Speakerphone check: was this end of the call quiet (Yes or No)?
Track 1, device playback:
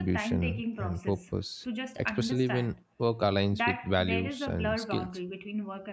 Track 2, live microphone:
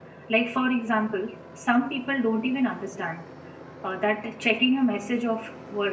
No